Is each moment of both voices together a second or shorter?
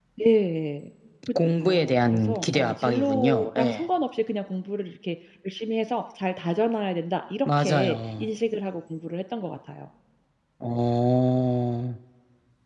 No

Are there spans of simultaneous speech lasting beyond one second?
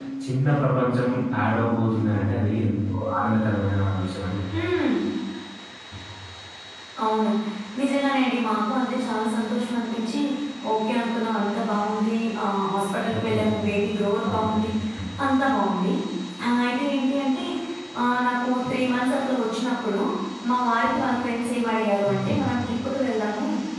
No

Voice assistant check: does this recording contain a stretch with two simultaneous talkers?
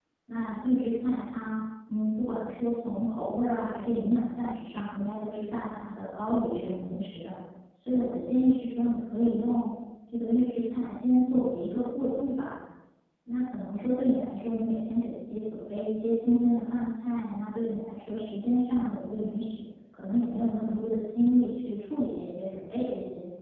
No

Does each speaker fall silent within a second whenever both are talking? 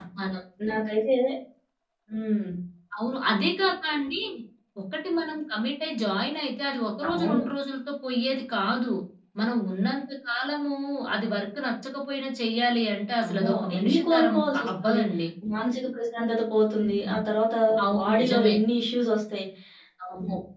No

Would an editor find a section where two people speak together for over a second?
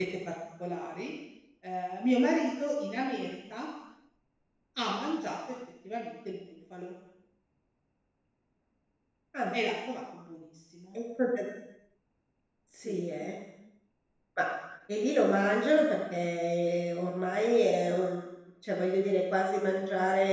No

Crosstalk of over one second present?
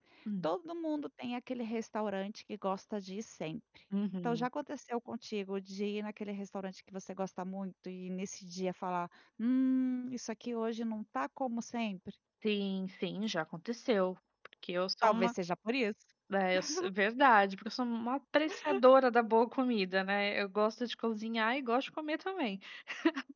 No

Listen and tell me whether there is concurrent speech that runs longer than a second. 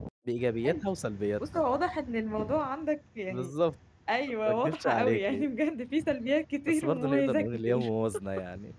Yes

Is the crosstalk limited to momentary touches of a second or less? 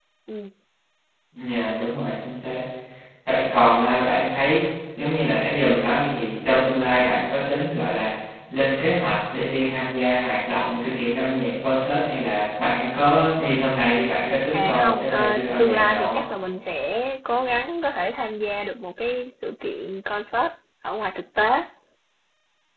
No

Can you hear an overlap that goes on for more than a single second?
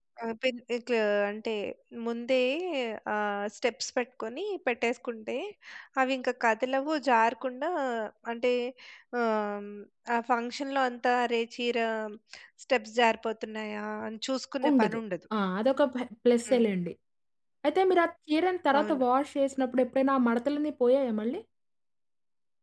No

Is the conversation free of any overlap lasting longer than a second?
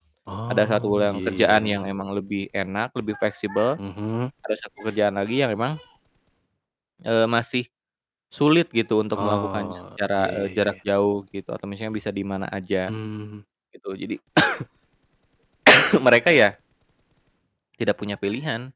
No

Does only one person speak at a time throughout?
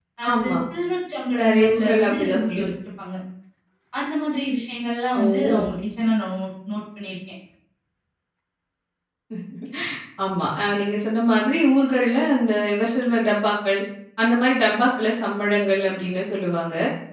No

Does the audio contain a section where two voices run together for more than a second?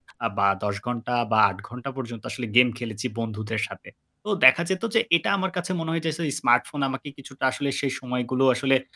No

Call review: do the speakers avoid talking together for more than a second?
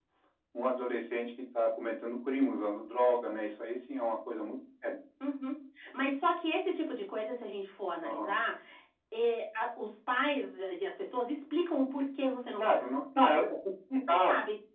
Yes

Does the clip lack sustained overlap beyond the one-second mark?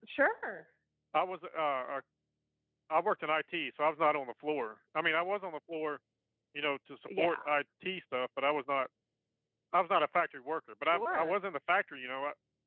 Yes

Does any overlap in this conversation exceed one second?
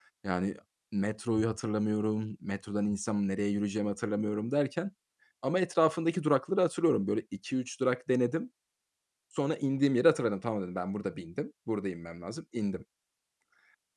No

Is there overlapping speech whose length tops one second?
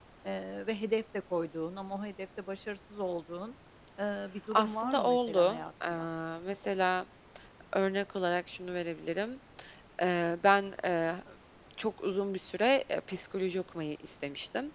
Yes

